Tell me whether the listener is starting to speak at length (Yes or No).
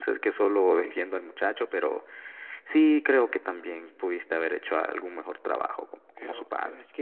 Yes